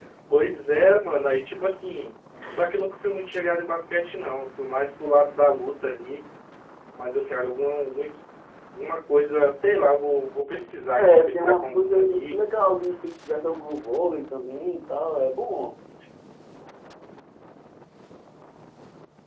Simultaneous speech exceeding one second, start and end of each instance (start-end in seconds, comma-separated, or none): 11.0-12.6